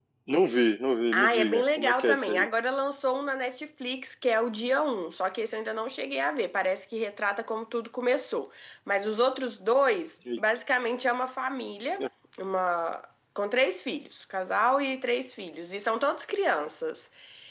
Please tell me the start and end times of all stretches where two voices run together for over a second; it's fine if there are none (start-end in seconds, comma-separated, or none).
1.1-2.5